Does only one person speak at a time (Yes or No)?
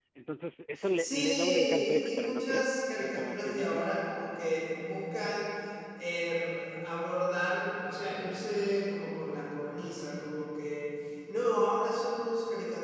No